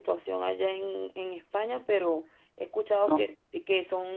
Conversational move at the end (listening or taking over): listening